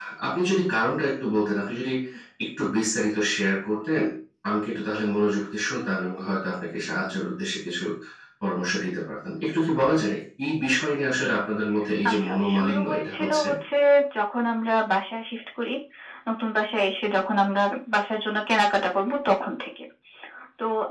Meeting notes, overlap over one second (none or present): present